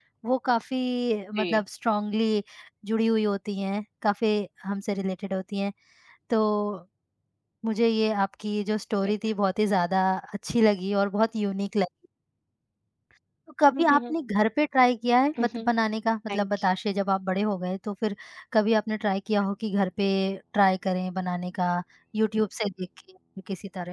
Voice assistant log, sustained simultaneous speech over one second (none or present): none